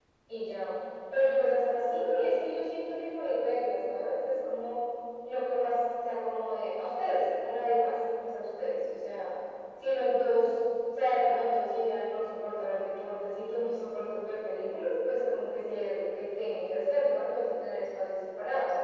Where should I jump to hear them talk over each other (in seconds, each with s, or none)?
none